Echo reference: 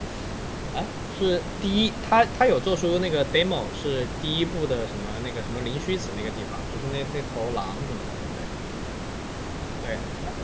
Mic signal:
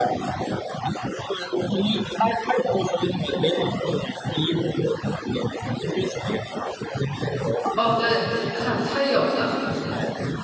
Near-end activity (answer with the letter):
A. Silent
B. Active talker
B